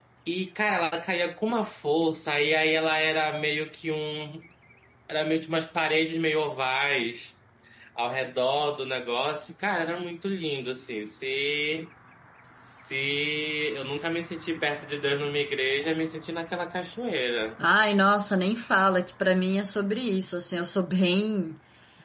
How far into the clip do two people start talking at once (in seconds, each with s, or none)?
none